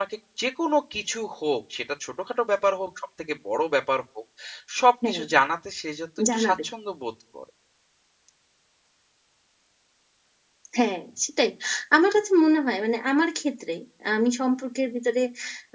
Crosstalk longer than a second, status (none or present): none